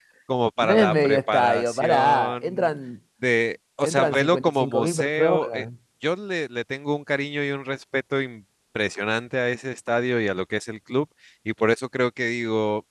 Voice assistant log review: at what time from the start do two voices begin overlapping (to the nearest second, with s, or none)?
1 s